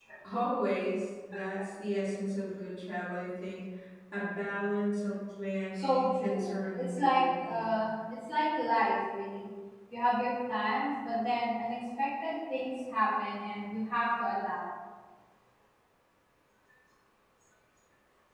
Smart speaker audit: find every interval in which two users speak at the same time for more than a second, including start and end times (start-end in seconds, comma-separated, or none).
5.7-7.7